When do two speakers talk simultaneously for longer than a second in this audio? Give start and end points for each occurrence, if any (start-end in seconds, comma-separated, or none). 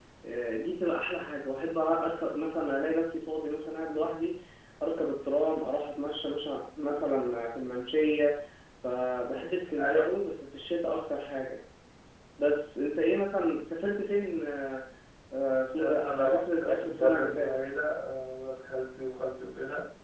15.7-17.5